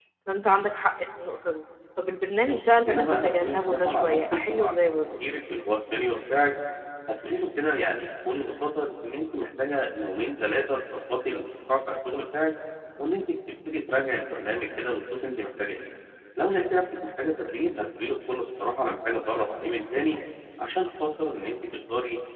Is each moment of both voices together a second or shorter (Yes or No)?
No